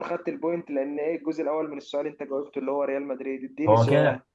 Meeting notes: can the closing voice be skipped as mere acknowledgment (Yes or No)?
No